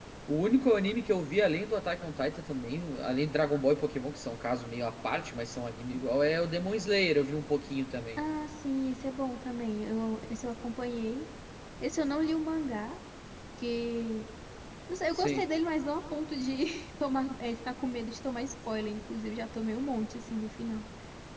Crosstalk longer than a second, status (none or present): none